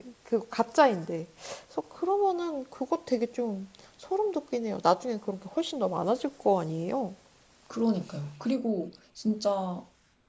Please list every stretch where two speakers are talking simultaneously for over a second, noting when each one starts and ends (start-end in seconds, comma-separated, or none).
none